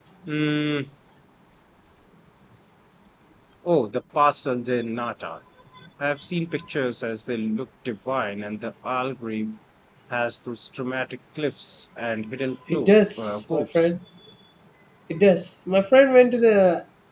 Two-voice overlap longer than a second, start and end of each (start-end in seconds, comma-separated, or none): 12.7-13.9